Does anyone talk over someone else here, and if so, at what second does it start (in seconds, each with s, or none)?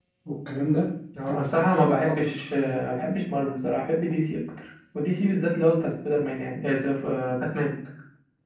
1.3 s